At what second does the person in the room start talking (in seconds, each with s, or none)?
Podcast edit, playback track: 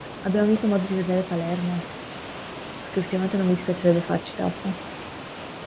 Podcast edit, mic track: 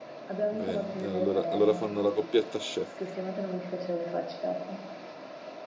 0.5 s